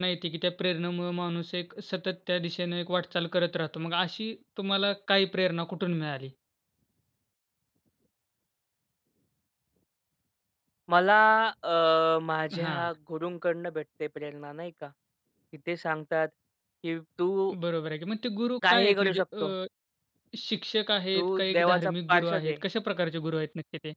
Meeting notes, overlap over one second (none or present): present